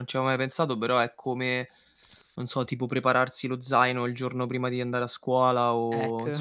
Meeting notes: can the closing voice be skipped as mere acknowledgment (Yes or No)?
Yes